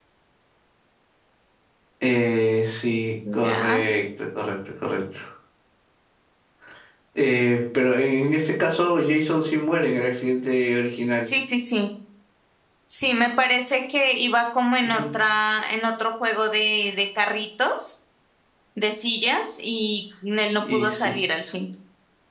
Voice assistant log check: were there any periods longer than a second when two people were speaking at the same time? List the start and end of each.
none

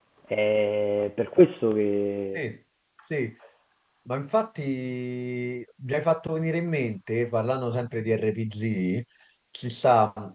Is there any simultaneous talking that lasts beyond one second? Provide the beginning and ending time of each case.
none

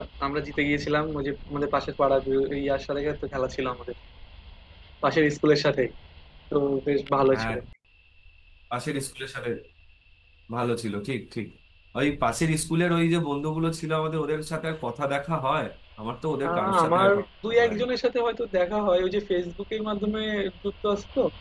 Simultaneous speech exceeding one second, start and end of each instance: 16.4-17.9

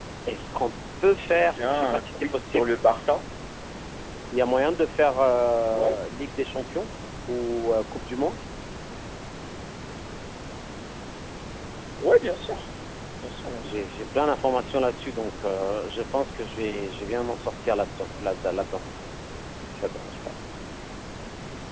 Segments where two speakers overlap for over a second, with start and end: 1.3-2.7

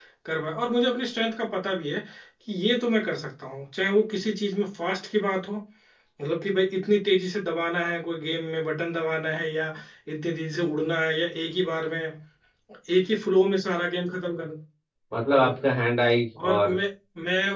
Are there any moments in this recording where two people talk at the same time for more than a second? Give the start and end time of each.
none

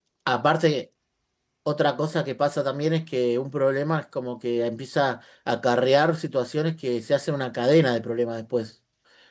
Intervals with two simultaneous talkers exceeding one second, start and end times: none

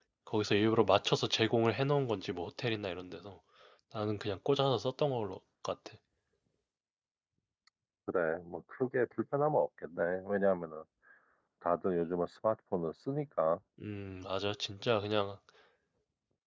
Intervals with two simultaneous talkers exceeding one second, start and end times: none

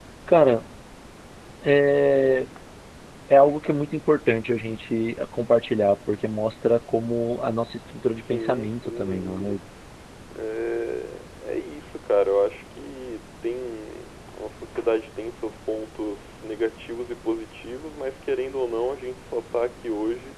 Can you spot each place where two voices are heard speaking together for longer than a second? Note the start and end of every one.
8.2-9.6

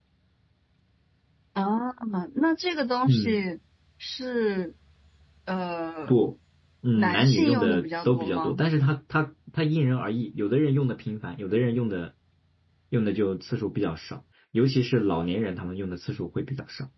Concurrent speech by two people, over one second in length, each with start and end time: 7.0-8.6

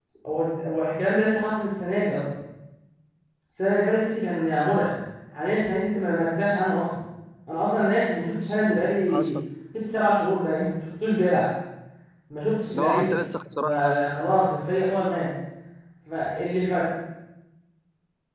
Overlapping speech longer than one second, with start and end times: none

